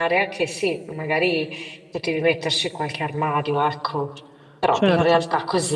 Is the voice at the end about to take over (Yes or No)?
No